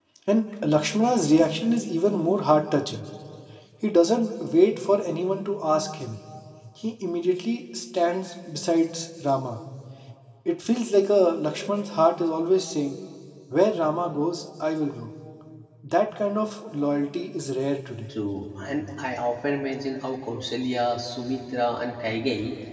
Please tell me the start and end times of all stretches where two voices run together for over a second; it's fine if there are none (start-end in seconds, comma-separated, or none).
none